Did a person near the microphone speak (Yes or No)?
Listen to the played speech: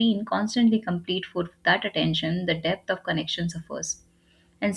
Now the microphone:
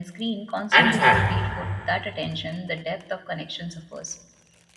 Yes